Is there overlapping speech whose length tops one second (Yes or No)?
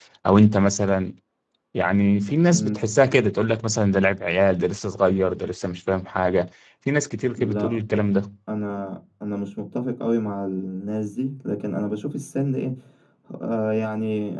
No